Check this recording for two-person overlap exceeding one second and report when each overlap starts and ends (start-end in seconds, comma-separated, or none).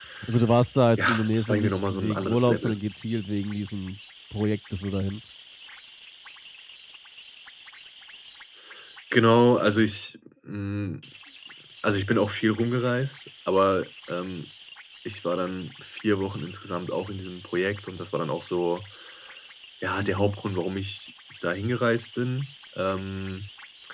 1.0-2.7